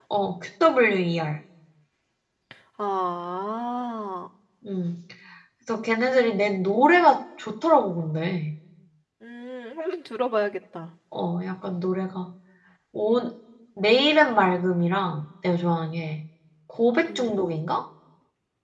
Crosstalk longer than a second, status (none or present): none